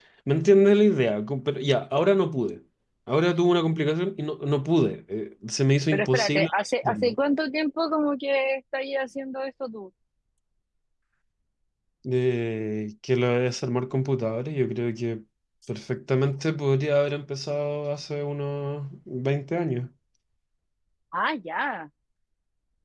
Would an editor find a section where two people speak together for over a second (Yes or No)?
Yes